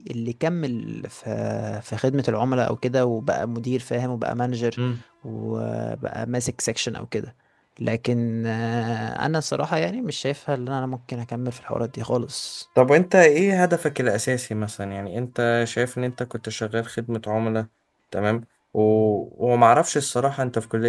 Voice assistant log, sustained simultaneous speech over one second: none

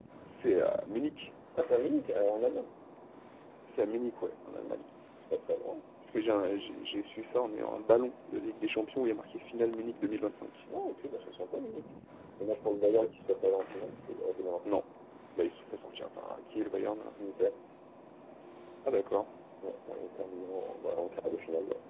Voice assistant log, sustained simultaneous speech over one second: none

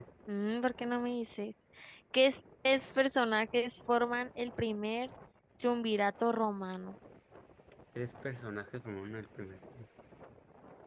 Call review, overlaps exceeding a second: none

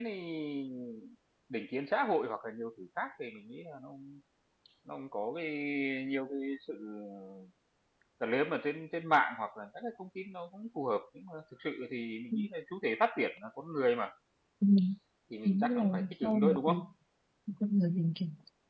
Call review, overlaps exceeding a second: present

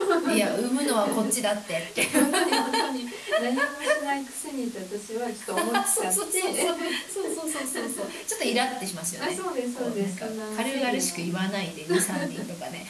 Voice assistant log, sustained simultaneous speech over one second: present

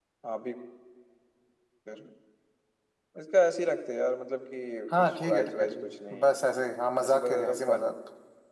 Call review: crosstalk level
present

